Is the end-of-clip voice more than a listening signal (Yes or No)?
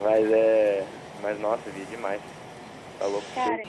No